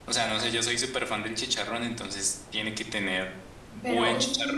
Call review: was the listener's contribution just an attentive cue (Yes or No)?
No